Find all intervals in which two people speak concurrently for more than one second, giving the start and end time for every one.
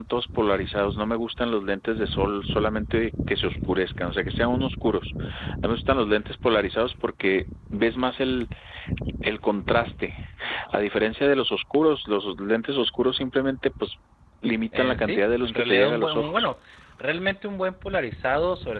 14.8-16.3

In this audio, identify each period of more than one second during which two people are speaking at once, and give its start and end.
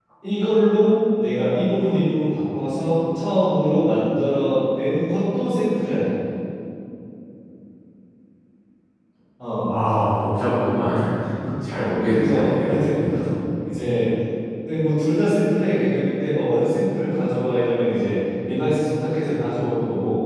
11.7-13.0

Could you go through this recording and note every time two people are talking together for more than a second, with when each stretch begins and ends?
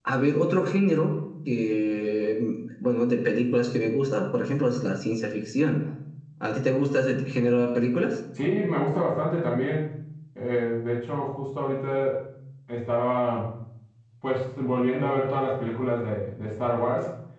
none

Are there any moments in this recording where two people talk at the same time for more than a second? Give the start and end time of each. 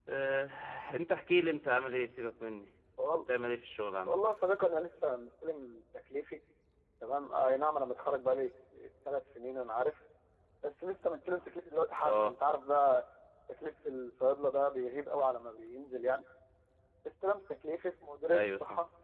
none

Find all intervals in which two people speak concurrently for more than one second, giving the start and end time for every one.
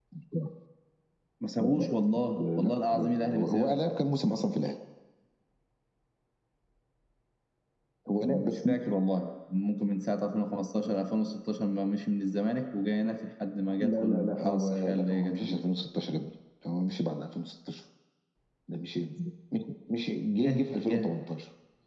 2.5-3.8, 13.8-15.6

